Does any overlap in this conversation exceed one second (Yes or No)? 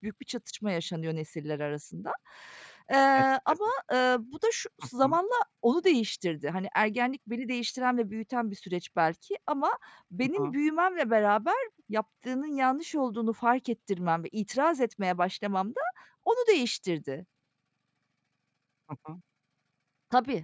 No